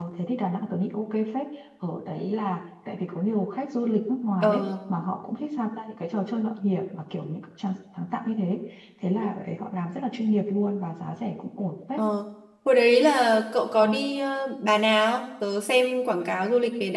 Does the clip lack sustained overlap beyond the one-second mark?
Yes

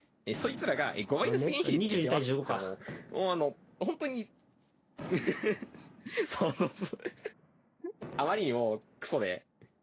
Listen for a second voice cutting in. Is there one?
Yes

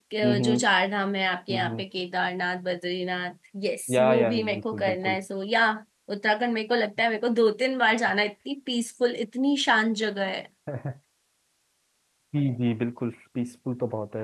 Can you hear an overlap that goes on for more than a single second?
Yes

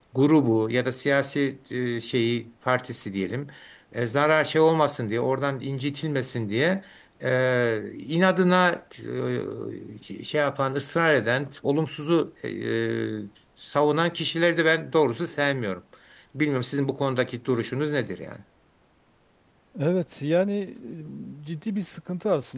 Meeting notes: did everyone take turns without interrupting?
Yes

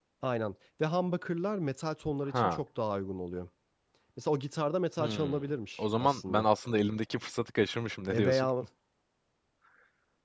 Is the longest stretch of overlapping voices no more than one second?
No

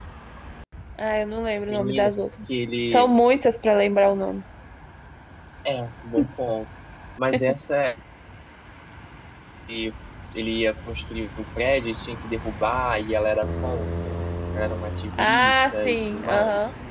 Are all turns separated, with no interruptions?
No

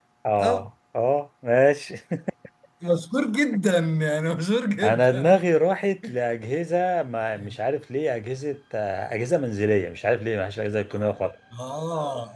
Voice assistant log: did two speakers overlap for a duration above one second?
No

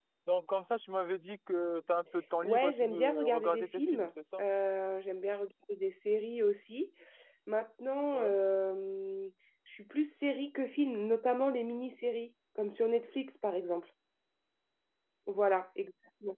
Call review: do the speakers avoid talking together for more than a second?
No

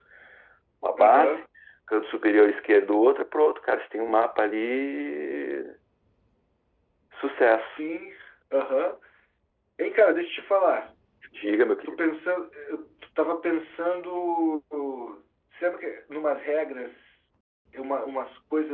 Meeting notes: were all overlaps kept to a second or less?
Yes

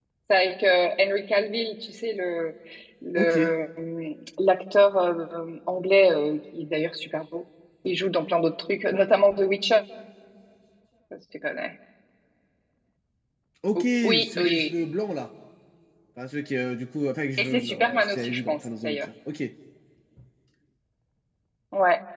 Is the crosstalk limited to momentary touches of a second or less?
No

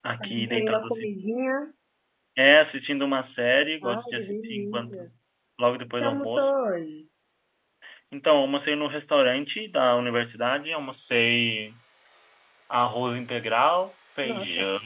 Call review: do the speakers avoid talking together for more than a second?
No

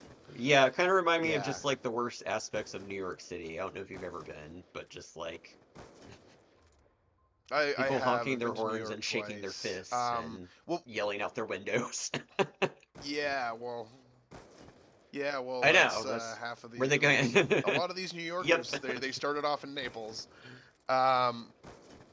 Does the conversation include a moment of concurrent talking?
Yes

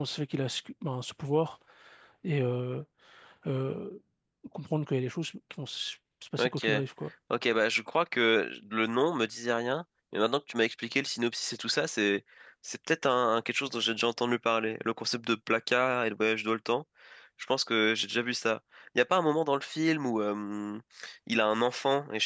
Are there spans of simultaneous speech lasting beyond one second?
No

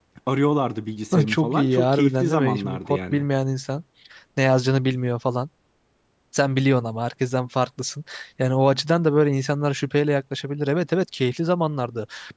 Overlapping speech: Yes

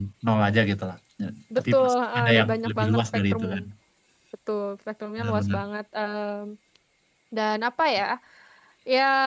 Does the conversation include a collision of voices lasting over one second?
Yes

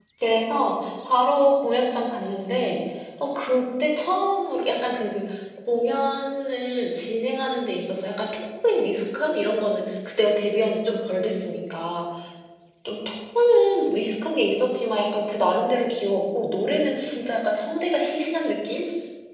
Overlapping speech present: No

